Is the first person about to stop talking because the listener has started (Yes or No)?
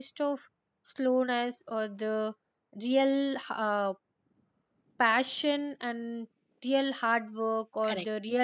No